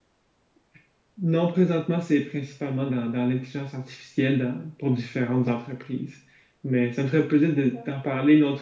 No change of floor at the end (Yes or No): Yes